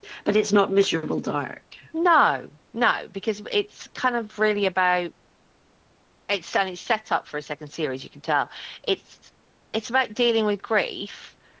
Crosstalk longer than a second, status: none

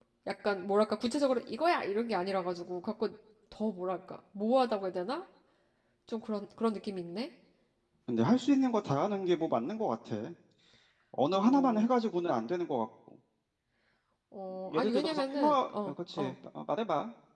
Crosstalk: present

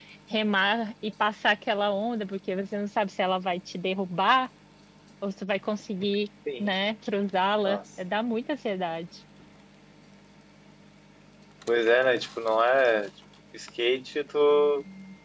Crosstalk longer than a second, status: none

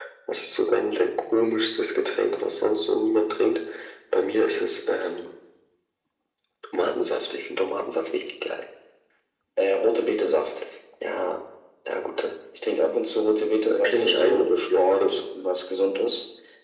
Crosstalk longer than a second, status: present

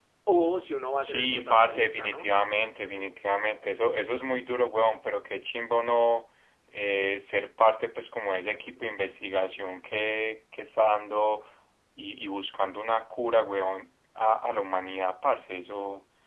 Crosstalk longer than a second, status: present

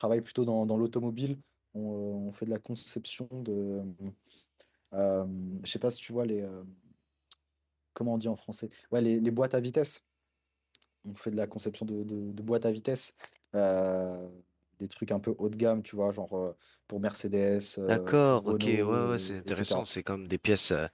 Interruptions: present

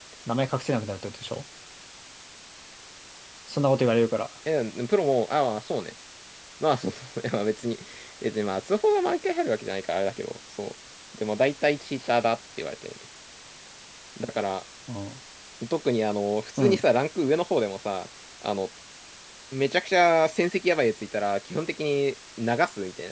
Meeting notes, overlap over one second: none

